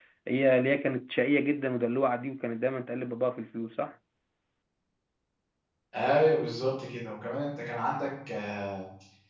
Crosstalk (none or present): none